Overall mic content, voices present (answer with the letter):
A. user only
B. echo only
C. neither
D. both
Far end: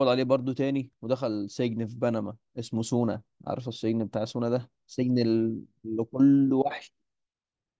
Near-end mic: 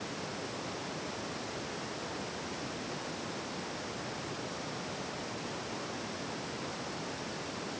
C